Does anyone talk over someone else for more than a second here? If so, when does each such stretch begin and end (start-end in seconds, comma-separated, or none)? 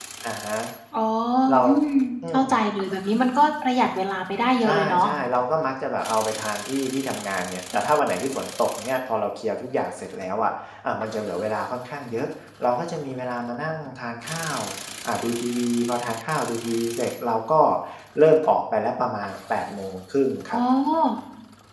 none